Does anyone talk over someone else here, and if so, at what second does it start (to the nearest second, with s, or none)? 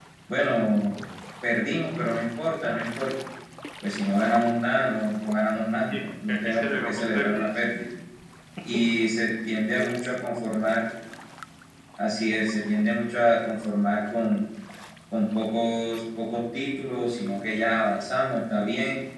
6 s